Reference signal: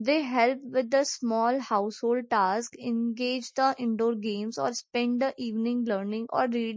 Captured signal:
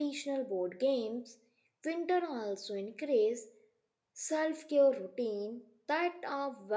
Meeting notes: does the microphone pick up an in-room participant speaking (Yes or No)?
Yes